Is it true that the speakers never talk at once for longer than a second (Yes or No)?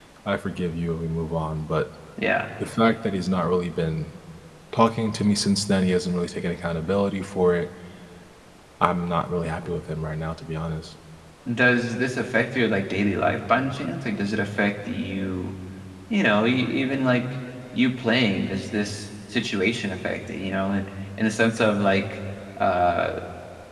Yes